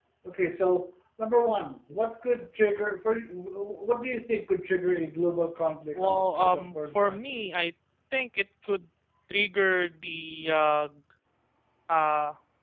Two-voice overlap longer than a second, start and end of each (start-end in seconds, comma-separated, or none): 5.9-7.5